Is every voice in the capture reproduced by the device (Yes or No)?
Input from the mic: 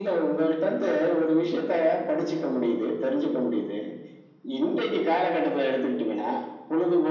Yes